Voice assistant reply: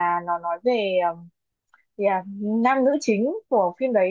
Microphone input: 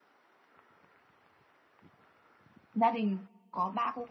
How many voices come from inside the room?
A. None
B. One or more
B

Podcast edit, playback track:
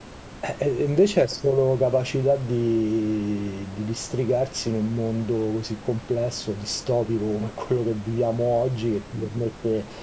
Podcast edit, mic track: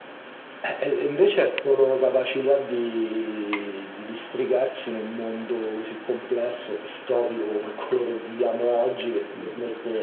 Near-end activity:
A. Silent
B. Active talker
A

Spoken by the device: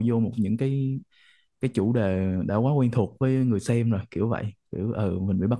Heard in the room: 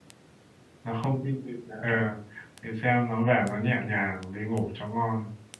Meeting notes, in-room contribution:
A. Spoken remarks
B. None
A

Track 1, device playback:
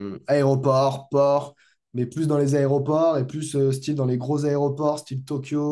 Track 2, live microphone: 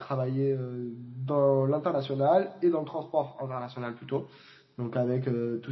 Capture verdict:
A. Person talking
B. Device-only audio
A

